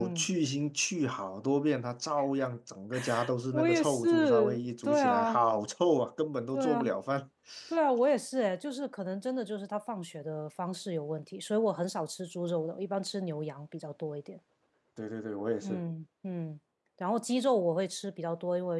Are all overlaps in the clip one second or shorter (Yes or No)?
No